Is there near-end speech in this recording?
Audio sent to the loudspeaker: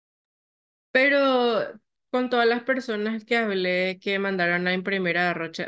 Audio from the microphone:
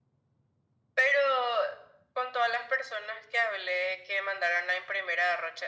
No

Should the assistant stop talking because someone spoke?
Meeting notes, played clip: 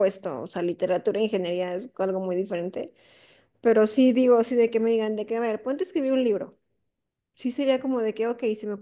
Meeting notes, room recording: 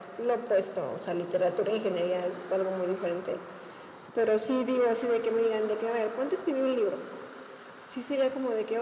No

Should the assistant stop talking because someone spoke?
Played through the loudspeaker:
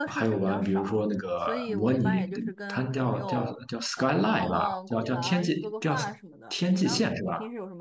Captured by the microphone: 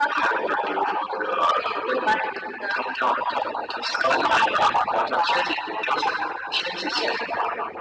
No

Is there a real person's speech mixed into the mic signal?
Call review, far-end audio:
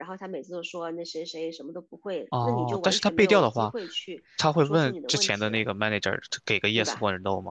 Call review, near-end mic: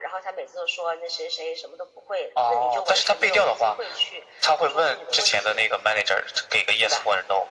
No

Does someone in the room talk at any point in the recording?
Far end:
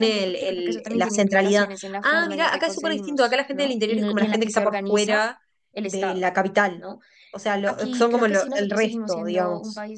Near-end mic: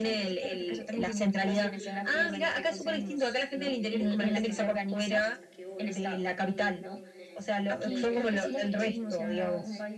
Yes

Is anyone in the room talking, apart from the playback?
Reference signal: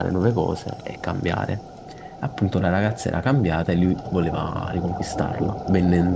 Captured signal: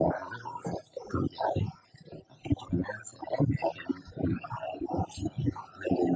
No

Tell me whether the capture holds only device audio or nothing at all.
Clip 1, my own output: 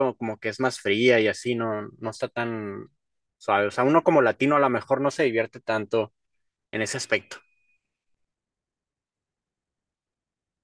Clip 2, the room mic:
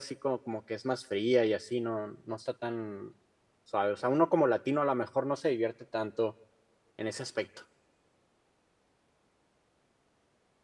Yes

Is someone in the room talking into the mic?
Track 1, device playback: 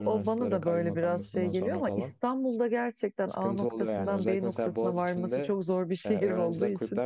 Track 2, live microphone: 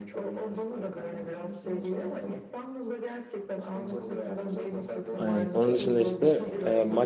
Yes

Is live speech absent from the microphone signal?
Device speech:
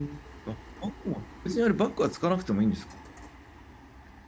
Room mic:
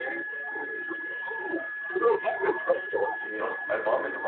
No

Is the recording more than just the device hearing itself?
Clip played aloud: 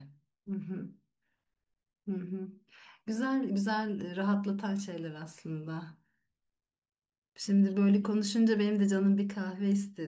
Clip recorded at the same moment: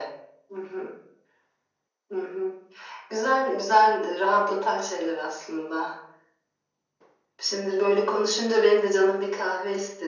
No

